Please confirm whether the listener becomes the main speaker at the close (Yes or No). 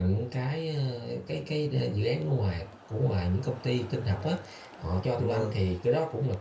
No